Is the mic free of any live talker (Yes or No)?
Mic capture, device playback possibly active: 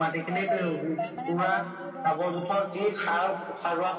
No